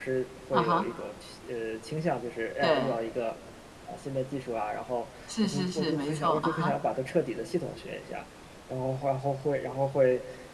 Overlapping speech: Yes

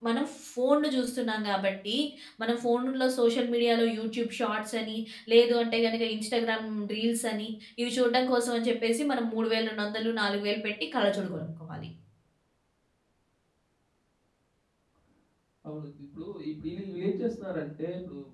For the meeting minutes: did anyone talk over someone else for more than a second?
No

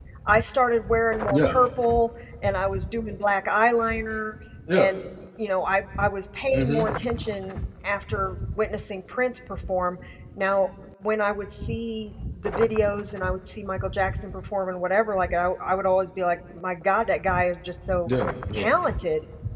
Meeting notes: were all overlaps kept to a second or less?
Yes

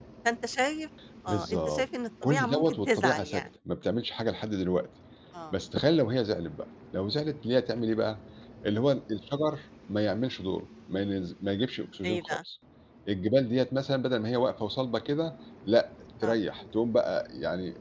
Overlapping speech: Yes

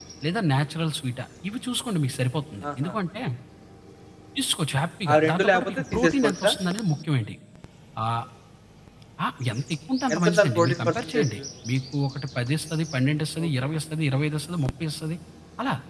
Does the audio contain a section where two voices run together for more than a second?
Yes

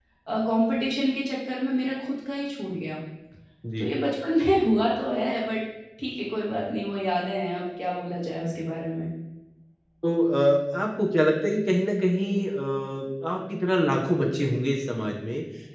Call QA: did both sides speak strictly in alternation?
Yes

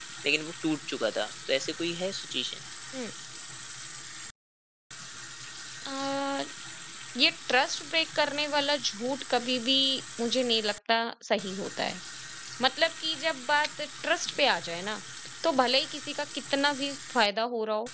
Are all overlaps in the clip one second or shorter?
Yes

